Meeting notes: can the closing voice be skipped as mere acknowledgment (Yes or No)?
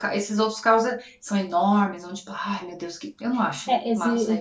No